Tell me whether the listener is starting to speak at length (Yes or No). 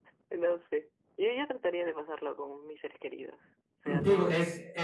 Yes